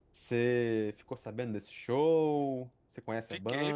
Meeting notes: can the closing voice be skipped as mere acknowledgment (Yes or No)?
No